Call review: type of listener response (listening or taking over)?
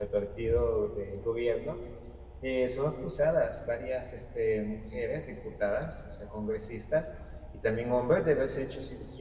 listening